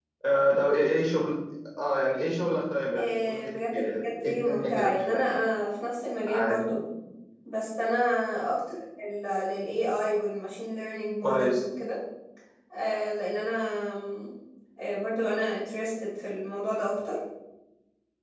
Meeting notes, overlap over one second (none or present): present